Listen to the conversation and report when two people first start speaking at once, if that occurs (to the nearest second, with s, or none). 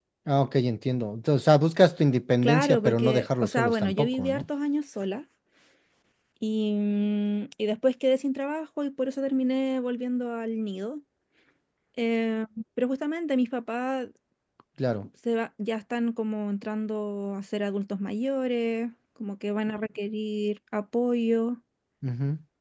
2 s